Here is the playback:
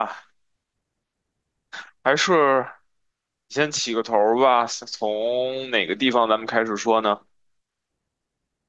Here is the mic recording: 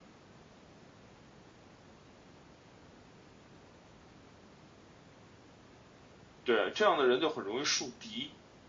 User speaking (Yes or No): Yes